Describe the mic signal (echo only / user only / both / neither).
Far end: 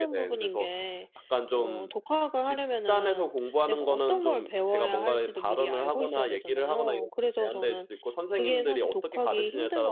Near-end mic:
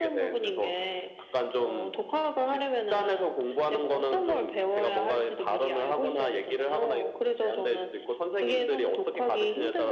echo only